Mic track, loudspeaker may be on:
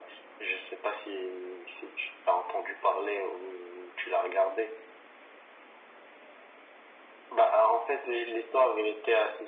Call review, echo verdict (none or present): present